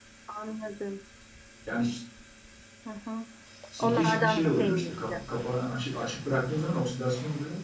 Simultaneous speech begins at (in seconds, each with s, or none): 3.8 s